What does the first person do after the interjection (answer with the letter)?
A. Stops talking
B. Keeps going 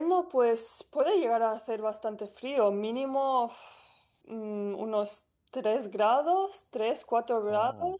B